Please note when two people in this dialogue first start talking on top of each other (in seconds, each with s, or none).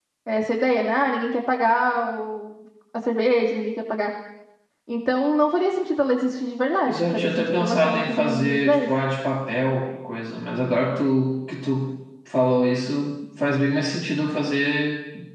6.9 s